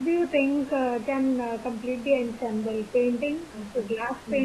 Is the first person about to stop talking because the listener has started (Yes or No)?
Yes